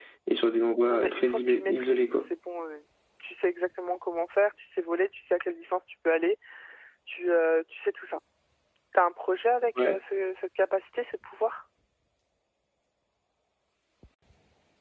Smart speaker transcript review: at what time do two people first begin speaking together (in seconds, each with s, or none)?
0.9 s